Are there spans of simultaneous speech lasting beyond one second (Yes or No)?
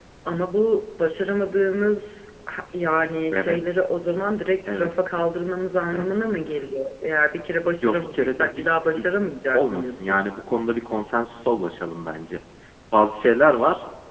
Yes